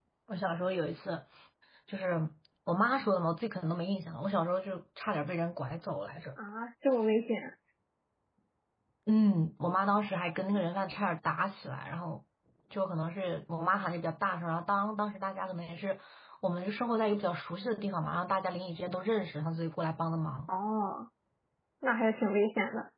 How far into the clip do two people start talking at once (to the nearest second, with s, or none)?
none